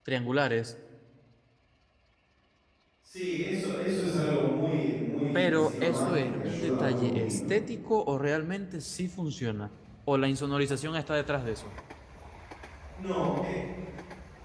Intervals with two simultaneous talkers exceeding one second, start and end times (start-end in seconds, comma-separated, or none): 5.3-7.5